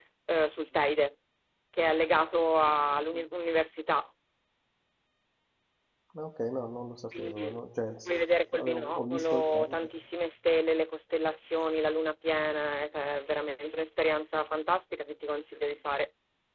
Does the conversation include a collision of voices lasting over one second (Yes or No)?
Yes